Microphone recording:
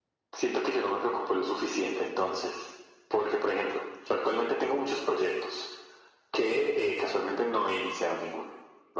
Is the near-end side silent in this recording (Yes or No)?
Yes